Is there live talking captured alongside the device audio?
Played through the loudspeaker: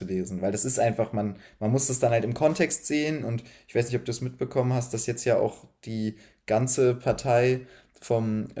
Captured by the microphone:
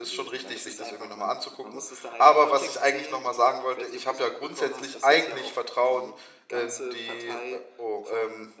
Yes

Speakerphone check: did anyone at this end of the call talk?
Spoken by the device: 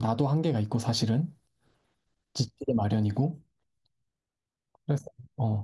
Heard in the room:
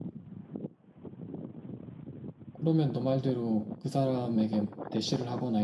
Yes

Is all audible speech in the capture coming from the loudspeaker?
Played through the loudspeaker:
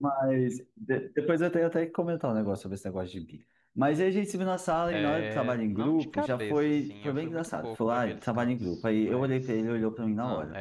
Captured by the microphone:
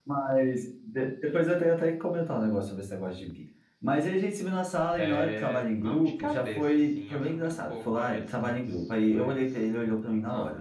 Yes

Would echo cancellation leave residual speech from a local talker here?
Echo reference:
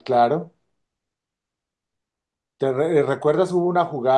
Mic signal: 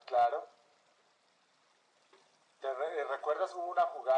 No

